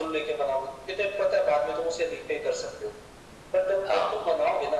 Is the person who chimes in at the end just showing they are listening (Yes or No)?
Yes